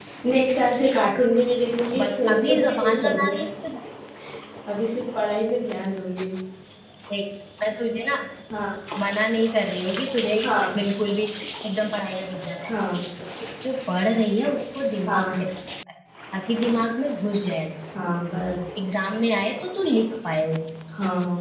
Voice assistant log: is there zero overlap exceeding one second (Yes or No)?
No